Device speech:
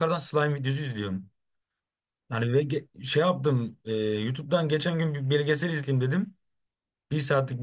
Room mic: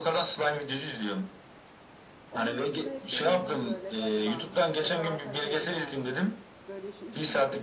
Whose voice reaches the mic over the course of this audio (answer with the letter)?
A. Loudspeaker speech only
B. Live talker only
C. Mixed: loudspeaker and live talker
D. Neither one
C